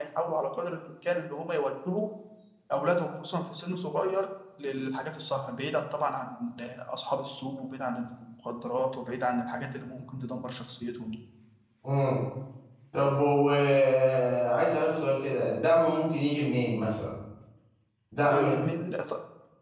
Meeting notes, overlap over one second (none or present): none